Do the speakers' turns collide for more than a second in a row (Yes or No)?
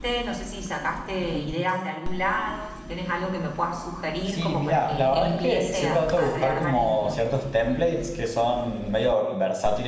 Yes